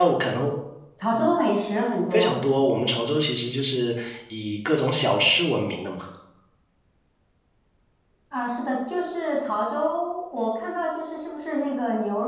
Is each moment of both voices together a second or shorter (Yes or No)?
Yes